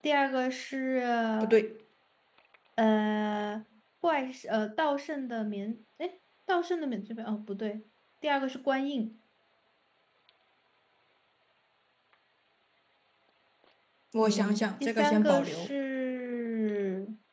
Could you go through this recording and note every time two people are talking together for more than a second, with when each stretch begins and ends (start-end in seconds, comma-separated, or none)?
14.2-15.7